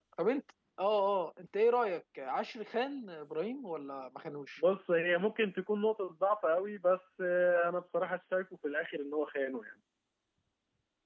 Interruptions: none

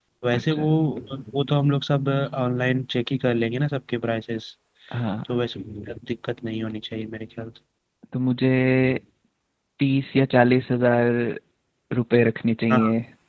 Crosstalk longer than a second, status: none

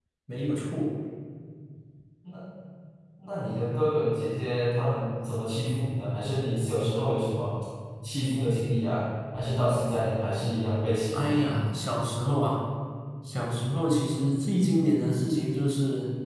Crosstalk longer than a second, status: none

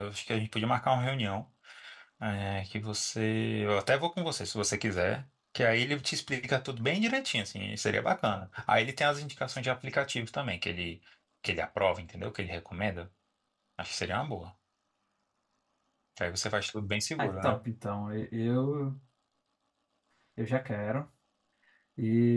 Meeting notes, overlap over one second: none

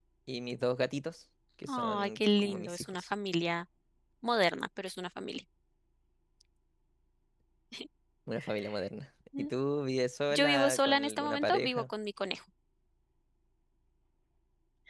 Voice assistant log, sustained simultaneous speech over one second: present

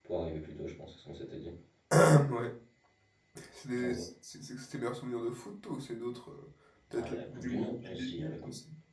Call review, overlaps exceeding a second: present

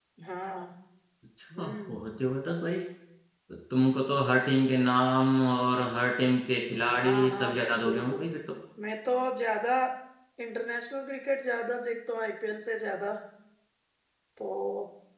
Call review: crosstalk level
present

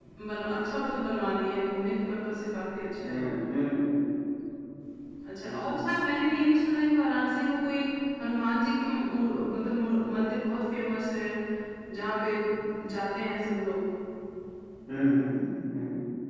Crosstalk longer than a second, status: none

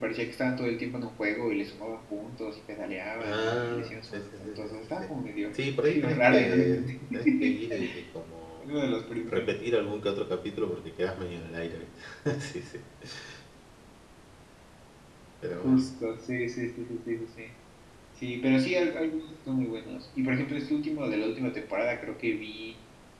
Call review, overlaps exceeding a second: present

